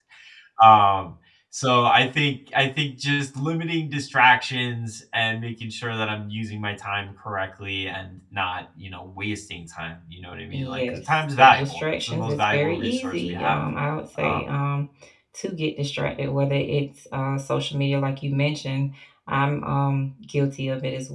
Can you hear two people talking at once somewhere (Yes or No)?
Yes